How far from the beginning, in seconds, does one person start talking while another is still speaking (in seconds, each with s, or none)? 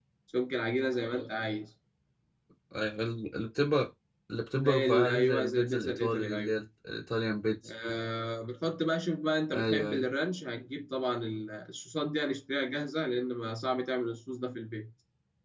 4.6 s